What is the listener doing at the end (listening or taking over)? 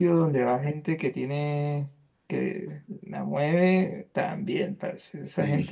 listening